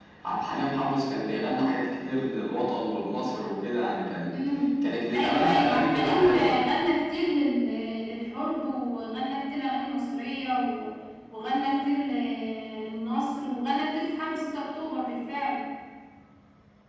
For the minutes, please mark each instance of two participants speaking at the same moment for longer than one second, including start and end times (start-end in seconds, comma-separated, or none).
5.2-6.6